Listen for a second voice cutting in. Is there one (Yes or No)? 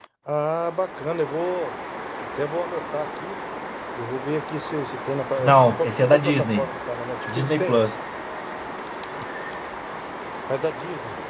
Yes